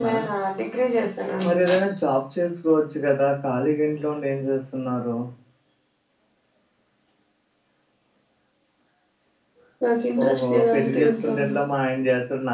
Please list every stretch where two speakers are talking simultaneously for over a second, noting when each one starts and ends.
10.2-11.6

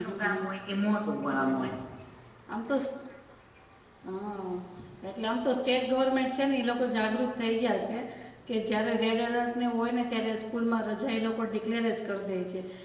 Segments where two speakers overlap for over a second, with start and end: none

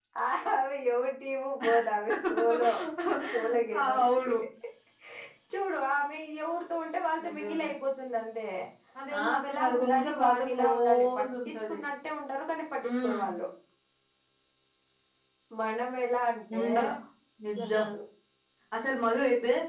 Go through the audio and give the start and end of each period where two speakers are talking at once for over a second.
9.2-11.8

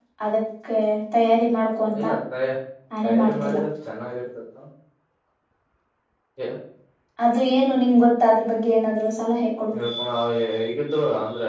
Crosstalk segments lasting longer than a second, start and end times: none

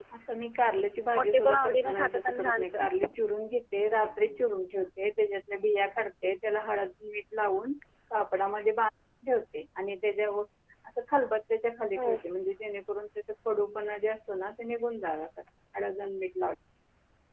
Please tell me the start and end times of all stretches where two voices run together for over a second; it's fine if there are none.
1.2-2.8

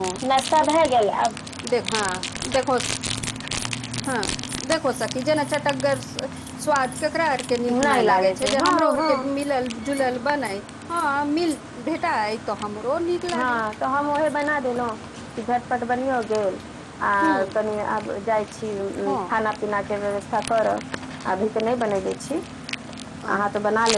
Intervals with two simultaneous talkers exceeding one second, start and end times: 7.7-9.3

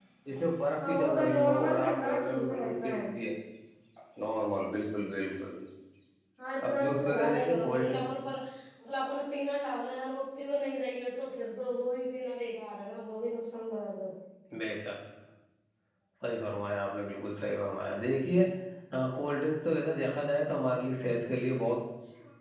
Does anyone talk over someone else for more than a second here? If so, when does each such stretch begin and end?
0.9-2.9, 6.7-8.0

